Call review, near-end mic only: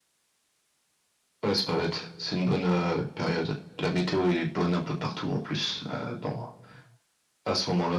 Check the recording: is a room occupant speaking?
No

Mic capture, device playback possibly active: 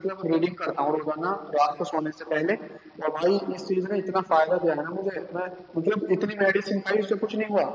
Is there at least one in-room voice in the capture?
No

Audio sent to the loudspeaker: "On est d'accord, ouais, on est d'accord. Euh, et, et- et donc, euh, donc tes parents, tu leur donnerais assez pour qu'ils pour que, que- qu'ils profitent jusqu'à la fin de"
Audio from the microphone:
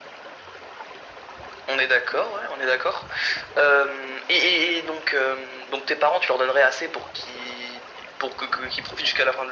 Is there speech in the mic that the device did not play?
No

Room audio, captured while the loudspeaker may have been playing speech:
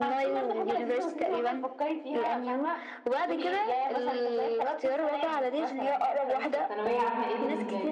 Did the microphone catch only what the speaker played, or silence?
No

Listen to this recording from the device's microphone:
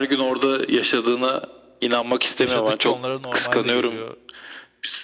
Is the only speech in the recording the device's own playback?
No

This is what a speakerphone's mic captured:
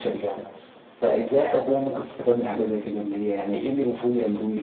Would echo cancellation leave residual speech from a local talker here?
No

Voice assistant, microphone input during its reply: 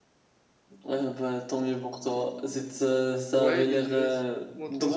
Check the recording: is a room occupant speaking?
Yes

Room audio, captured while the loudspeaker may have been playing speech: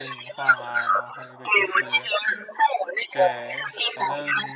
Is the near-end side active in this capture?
Yes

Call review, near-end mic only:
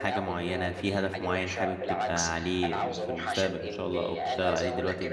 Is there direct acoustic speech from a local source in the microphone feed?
Yes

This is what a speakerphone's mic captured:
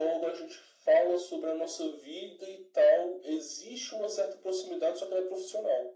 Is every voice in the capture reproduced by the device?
Yes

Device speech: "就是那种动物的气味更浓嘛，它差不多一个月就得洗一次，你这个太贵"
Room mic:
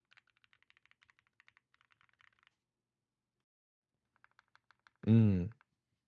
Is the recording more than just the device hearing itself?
Yes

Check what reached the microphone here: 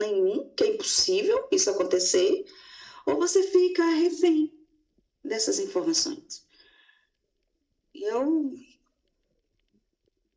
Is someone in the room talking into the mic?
No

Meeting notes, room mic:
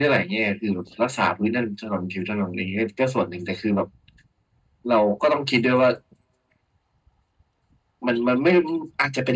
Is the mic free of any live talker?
Yes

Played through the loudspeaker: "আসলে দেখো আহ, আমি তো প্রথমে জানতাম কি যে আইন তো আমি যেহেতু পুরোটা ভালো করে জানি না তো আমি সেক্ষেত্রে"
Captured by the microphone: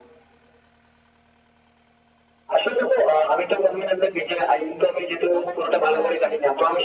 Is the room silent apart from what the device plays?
No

